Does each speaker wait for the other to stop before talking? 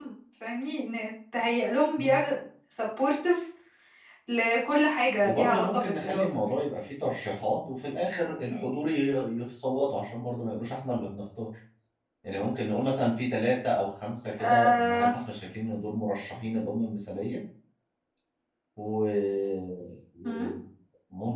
No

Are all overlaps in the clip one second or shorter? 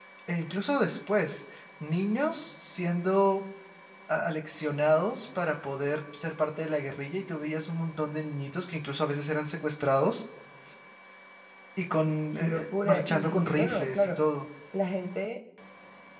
No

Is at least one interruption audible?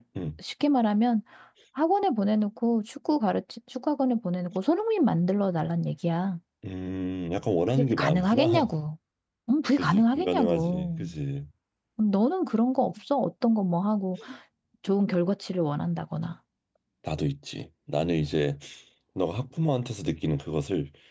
Yes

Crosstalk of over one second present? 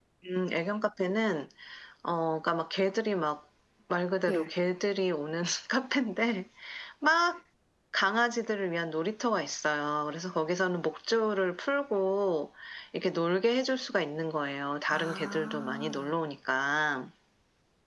Yes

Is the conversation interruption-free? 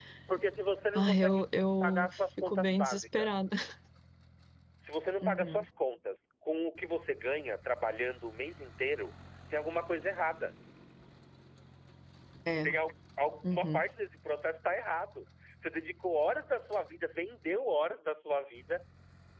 No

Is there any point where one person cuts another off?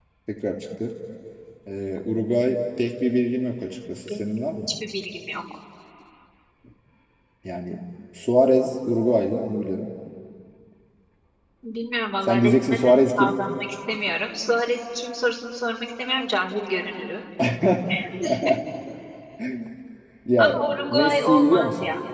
Yes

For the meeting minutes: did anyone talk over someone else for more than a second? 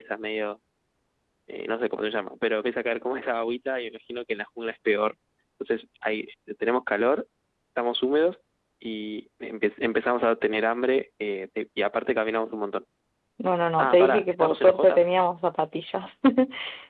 Yes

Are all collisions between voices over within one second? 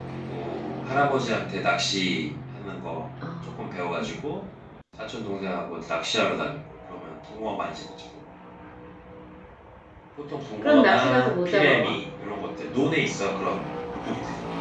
No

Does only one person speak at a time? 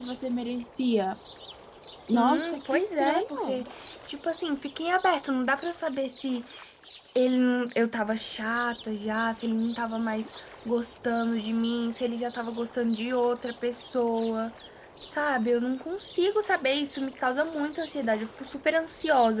No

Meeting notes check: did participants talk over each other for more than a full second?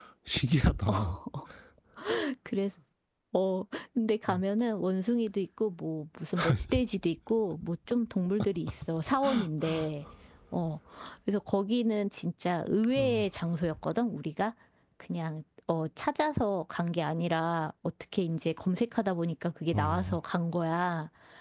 No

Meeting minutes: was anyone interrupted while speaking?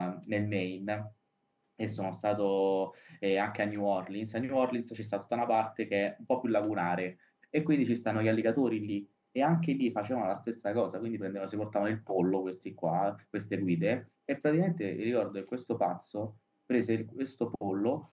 No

